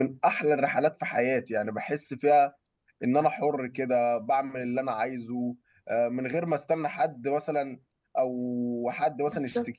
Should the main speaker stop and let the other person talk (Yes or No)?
No